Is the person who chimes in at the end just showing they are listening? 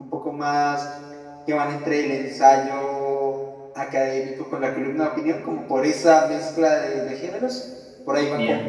Yes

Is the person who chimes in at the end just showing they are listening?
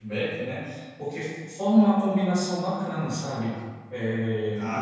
Yes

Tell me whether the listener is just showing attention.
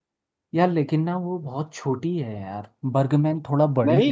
No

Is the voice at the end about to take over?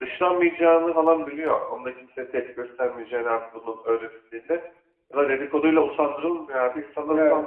No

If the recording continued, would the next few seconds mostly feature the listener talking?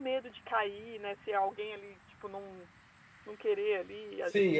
Yes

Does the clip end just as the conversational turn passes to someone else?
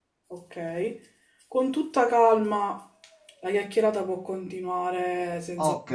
Yes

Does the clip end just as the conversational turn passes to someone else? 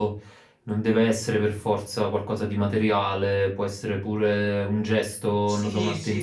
Yes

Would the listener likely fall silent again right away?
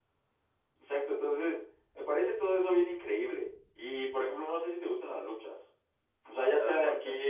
Yes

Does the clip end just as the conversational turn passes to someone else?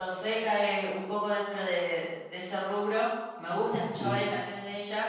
No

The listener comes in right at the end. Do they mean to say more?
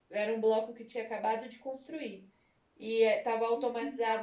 No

